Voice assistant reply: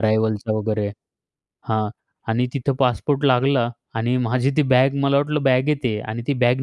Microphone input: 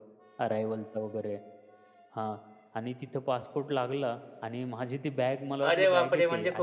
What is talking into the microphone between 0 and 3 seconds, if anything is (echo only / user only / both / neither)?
echo only